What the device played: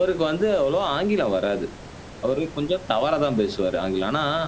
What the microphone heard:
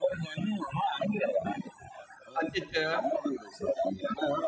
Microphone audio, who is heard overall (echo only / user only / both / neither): both